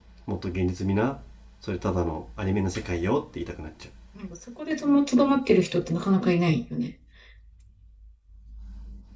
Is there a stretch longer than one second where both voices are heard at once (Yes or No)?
No